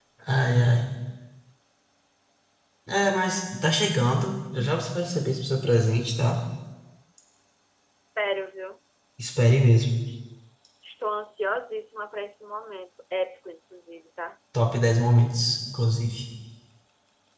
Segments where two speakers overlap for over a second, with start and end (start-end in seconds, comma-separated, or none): none